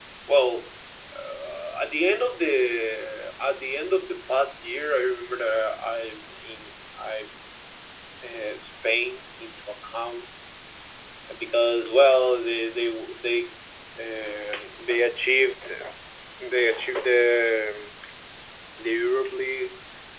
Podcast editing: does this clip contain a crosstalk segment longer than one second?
No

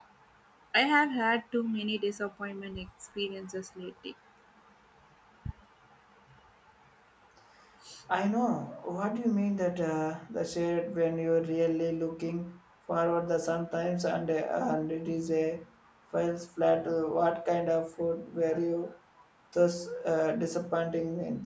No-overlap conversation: Yes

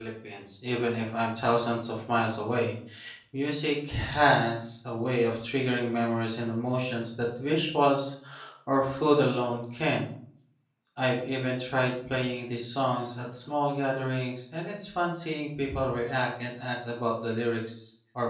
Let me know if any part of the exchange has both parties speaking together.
No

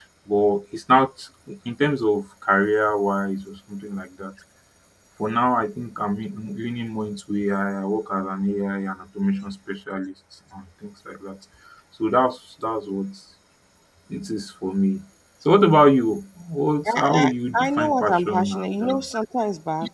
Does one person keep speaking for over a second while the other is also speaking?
Yes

